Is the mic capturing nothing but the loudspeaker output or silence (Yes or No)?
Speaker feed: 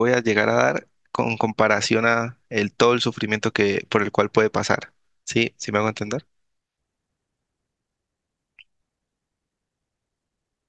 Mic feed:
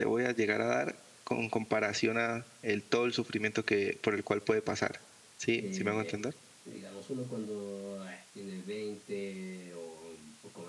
No